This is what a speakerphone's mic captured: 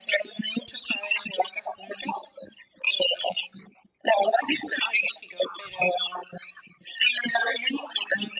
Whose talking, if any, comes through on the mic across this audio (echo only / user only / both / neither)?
echo only